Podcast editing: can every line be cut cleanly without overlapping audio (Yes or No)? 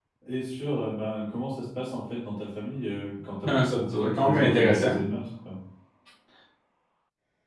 No